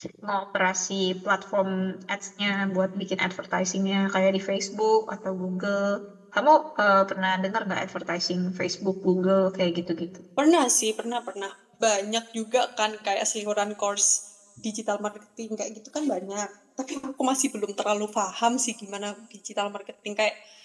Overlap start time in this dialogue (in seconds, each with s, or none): none